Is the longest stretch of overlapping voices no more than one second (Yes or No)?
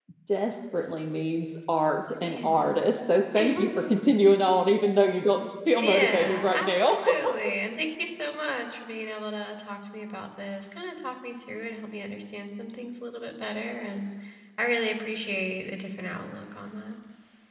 No